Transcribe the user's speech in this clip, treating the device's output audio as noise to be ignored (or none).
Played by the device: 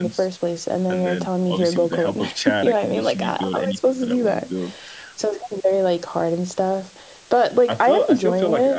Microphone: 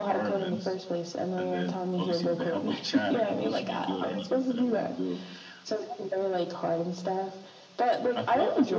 none